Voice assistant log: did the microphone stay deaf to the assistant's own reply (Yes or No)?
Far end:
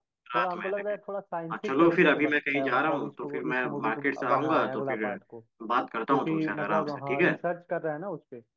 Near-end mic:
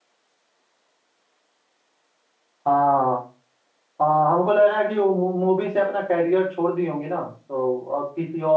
Yes